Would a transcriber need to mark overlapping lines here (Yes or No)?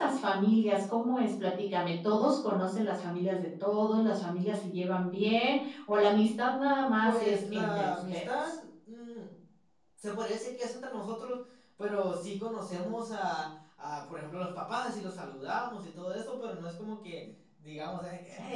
Yes